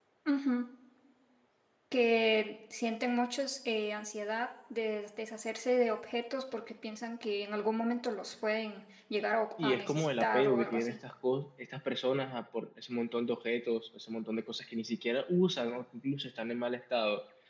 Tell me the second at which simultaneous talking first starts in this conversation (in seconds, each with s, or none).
9.6 s